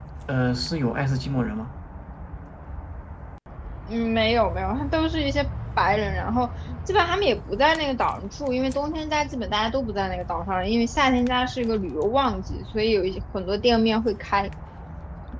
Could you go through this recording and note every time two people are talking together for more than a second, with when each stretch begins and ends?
none

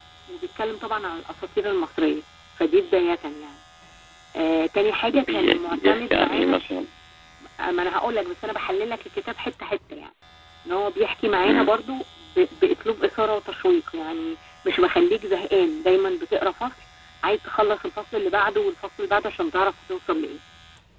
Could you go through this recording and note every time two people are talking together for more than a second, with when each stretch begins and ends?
5.1-6.6

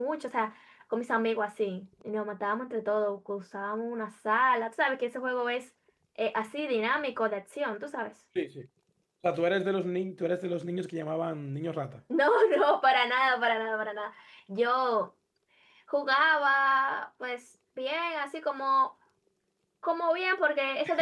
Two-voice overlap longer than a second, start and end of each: none

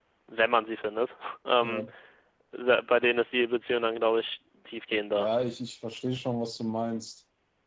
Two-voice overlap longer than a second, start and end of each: none

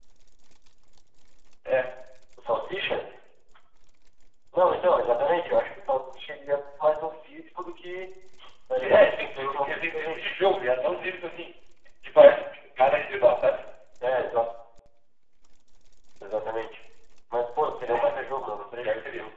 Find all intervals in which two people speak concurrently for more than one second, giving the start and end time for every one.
8.8-10.2

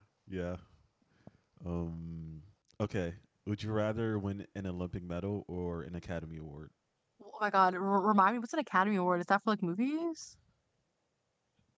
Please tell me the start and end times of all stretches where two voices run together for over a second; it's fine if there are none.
none

